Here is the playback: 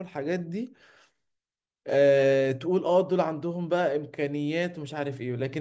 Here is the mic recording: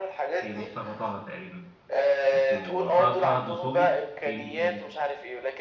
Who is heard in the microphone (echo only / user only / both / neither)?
both